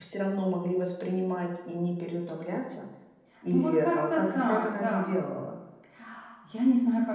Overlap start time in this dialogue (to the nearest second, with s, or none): 4 s